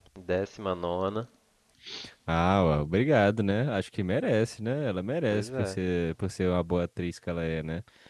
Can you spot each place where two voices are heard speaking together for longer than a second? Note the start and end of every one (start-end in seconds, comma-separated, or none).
none